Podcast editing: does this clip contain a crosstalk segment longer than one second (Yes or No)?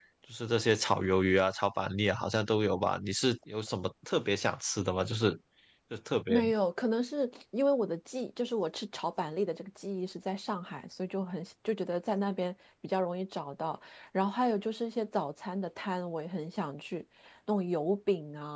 No